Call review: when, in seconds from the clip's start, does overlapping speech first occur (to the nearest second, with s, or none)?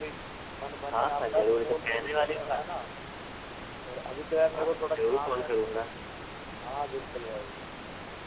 1 s